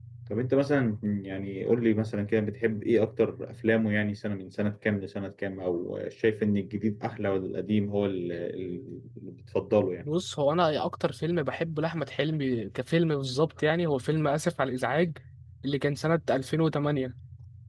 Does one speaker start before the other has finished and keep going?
No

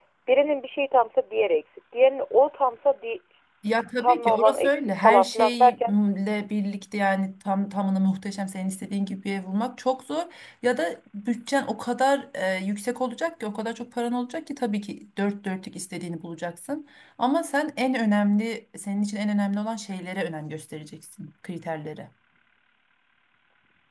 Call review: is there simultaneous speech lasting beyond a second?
Yes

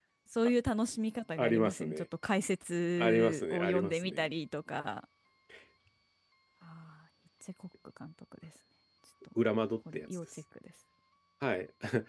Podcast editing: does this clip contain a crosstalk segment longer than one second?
Yes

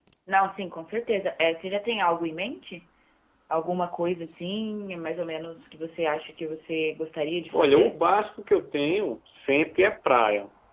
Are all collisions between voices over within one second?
Yes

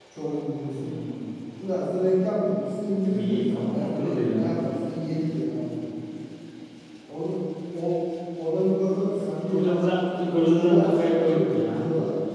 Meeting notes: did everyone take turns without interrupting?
No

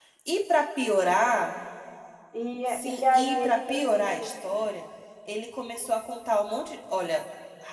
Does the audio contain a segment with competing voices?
Yes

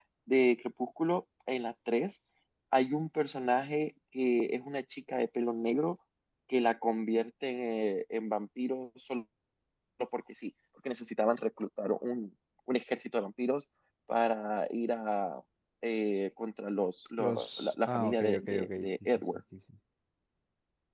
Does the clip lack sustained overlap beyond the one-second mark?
No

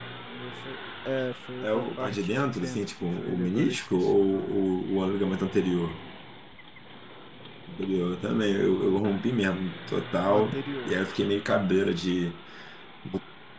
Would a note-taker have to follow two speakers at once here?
Yes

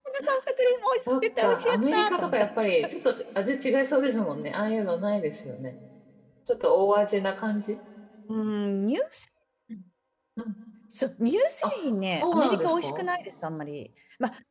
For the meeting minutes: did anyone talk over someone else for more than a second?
Yes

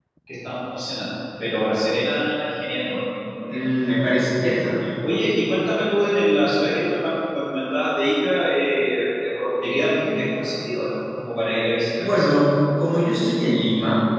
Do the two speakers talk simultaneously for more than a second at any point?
No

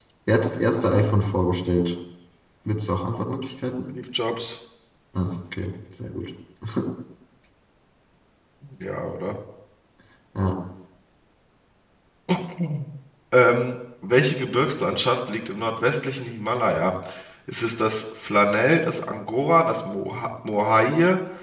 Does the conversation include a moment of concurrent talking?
No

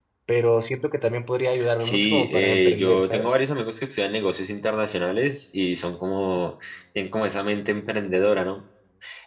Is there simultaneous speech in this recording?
Yes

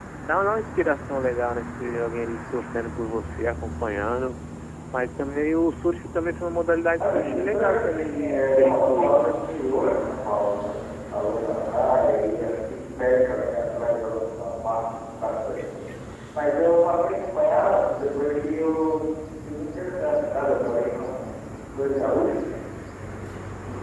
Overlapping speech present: Yes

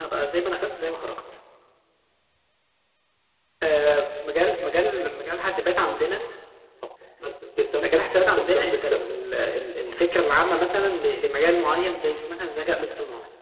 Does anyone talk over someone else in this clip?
Yes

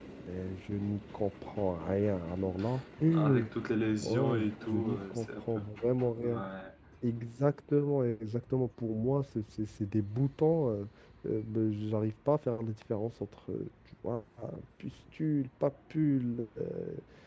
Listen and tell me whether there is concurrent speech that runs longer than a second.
Yes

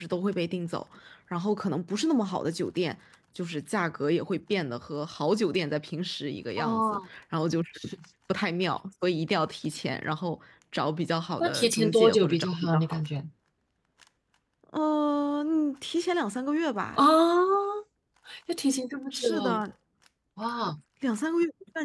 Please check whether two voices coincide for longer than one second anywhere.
Yes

